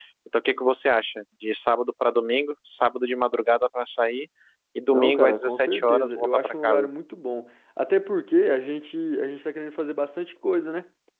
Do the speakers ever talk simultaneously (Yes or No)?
Yes